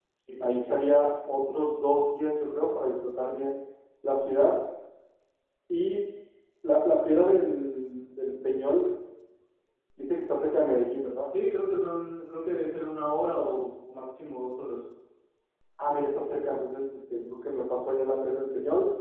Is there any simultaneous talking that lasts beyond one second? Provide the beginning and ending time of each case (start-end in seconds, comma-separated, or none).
none